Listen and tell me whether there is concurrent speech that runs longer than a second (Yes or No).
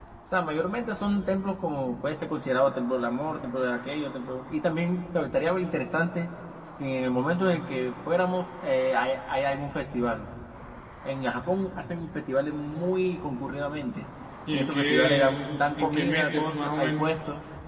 Yes